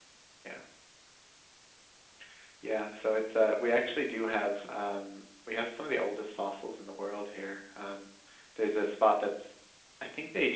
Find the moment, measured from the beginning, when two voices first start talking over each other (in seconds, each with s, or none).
none